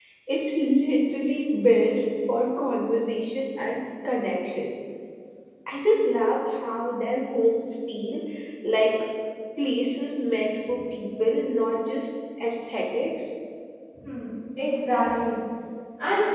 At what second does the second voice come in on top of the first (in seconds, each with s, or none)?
none